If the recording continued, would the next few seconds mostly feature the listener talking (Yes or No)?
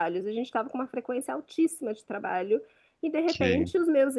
No